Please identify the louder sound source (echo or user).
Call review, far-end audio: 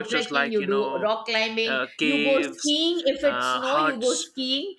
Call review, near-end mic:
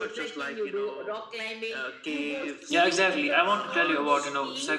user